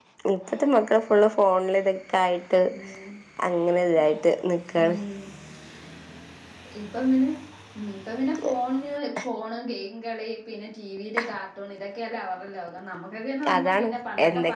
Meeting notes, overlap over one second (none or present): none